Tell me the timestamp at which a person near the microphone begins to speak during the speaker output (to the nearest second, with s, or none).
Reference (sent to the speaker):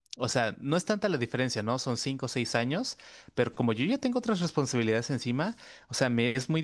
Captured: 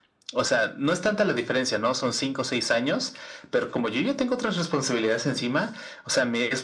none